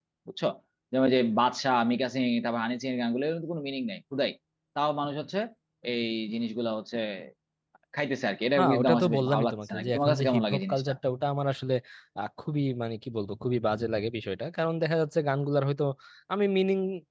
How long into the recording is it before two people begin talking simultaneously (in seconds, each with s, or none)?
8.6 s